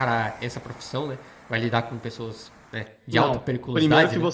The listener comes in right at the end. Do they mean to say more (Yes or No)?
Yes